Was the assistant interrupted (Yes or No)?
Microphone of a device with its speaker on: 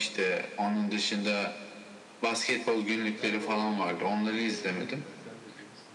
Yes